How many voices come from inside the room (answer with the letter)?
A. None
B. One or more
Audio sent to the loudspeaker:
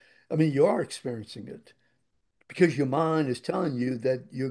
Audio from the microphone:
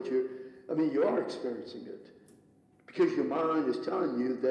A